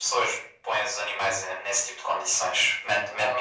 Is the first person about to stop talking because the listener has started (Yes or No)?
No